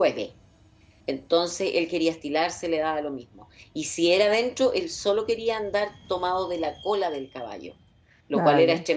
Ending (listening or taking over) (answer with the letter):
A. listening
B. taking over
A